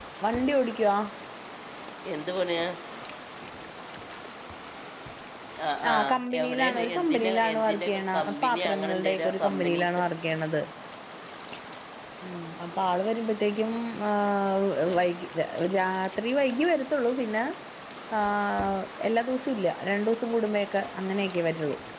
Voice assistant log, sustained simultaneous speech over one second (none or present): present